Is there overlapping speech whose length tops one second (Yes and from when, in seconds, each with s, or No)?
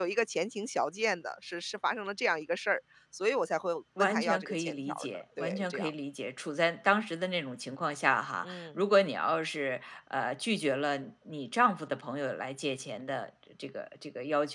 Yes, from 4.0 s